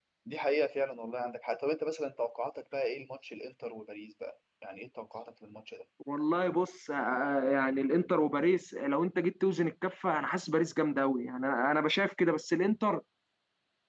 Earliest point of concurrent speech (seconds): none

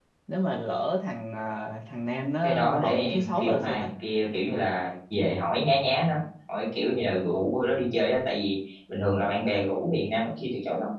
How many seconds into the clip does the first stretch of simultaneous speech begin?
2.4 s

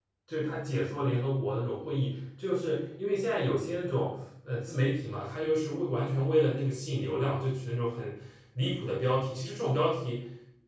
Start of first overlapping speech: none

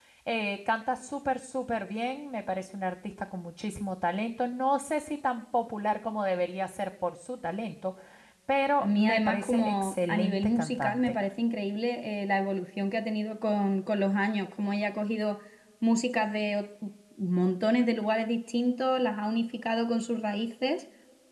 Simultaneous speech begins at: 8.8 s

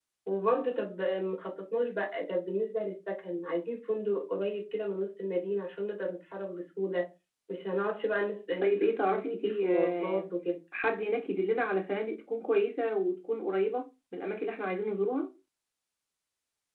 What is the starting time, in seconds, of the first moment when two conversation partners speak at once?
8.6 s

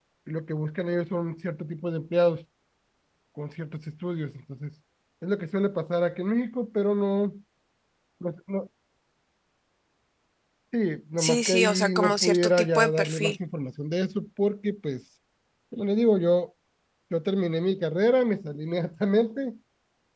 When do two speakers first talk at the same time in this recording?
11.2 s

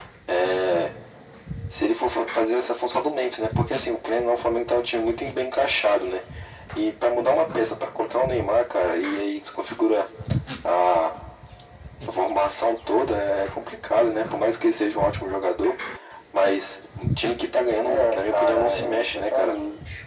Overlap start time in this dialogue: 17.8 s

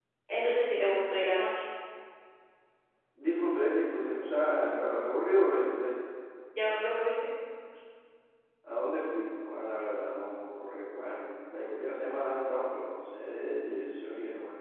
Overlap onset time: none

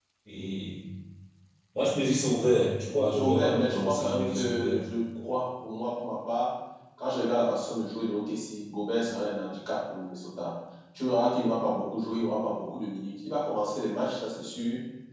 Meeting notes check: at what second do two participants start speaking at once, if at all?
2.9 s

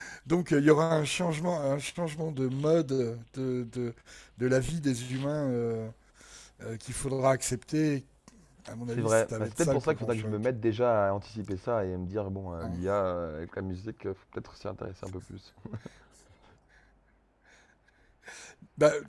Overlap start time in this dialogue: 8.9 s

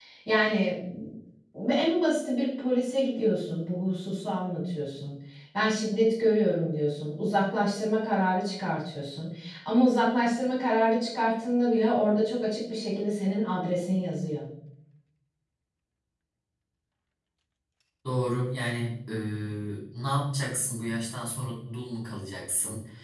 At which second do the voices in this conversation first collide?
none

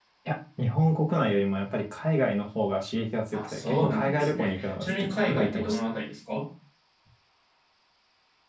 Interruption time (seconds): 3.3 s

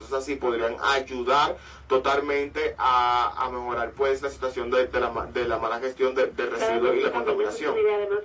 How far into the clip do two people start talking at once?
6.6 s

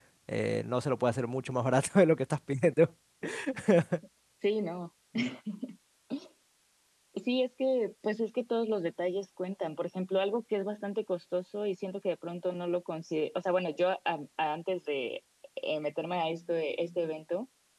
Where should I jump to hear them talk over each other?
none

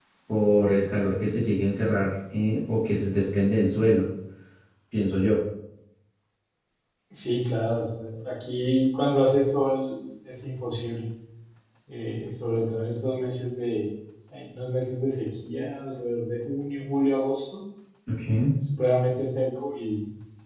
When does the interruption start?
none

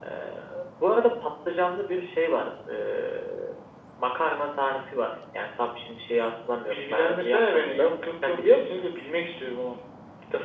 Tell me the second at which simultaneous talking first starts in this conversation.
6.7 s

